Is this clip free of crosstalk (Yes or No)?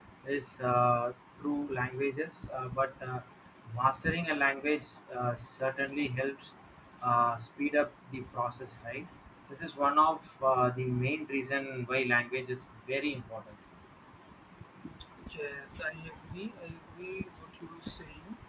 Yes